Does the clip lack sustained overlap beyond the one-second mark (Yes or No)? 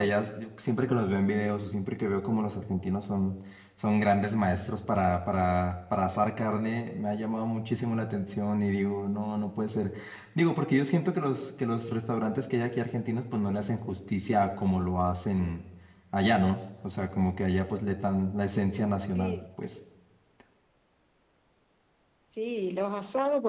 Yes